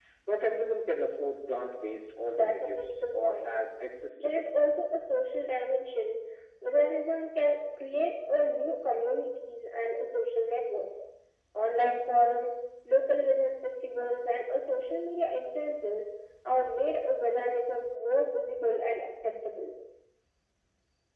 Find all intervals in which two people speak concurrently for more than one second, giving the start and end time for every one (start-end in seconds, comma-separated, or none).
2.3-3.5